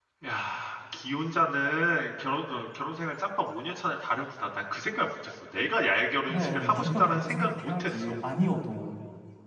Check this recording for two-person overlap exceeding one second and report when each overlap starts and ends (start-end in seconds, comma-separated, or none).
6.3-8.1